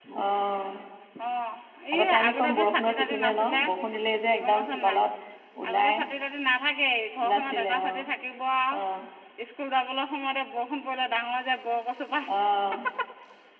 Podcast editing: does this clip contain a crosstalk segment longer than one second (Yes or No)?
Yes